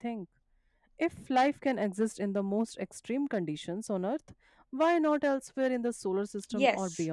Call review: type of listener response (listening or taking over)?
taking over